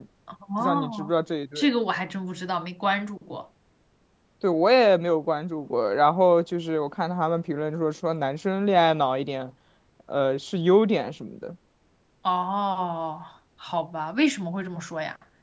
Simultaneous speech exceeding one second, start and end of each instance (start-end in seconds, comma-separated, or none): none